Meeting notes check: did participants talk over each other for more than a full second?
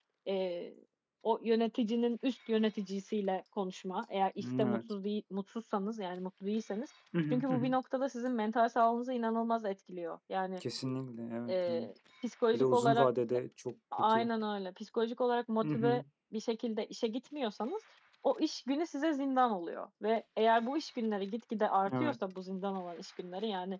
No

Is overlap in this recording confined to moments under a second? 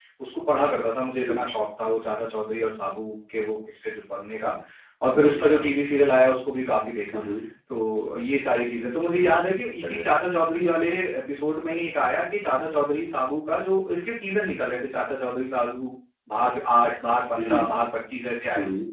Yes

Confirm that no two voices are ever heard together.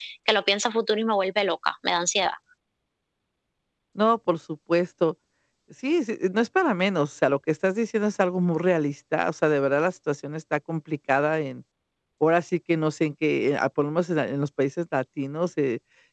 Yes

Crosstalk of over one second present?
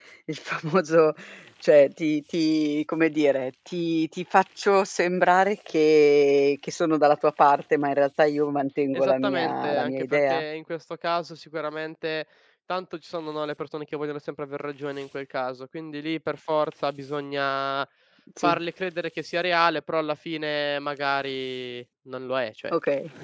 Yes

